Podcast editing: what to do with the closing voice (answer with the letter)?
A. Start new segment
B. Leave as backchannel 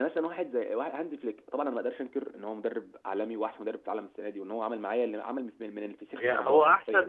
A